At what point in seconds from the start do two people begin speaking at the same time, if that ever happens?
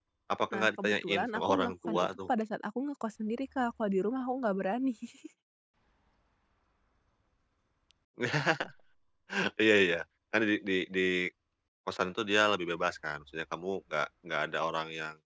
0.5 s

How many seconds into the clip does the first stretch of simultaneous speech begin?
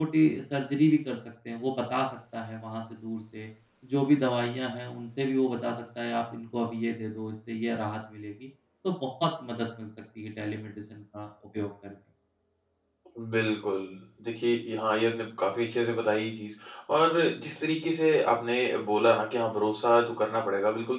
none

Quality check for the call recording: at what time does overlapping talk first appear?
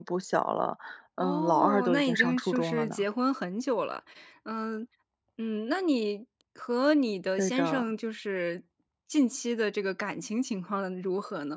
1.2 s

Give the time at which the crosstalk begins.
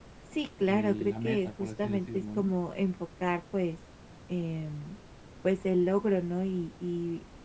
0.6 s

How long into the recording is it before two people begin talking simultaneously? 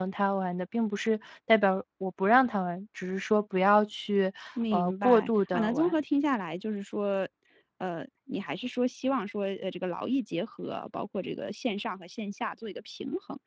4.7 s

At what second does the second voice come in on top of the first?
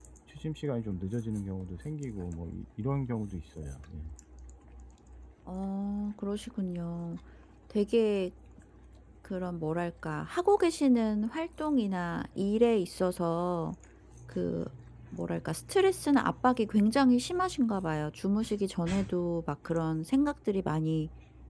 none

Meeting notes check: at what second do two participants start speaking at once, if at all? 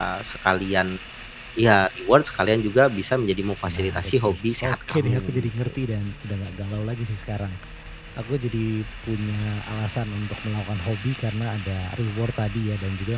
3.6 s

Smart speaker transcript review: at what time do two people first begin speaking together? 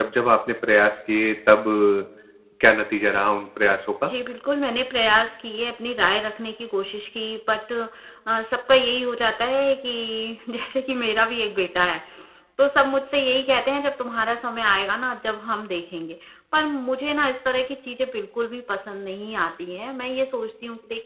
none

